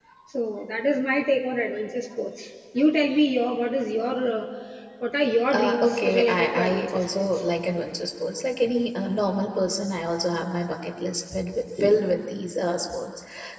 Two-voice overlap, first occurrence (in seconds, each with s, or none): 5.5 s